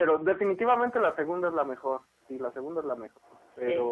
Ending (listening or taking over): listening